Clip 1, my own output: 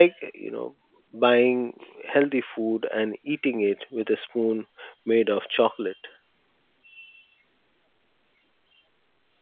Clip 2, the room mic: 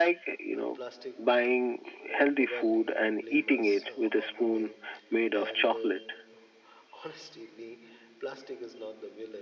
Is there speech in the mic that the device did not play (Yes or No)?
Yes